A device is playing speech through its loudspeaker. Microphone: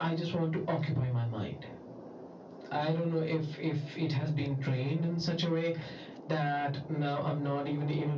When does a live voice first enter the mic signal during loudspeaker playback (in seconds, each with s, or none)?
none